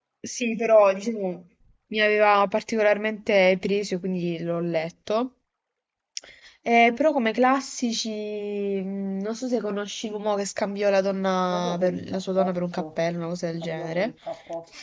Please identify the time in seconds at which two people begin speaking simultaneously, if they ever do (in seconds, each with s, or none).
11.5 s